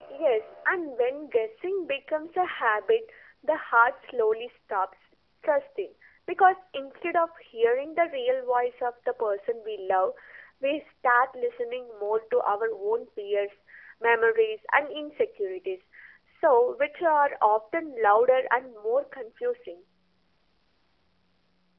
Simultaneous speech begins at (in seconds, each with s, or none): none